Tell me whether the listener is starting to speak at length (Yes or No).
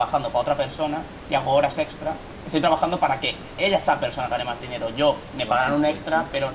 No